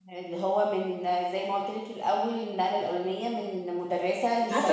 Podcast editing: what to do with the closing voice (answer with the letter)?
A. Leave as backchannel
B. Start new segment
B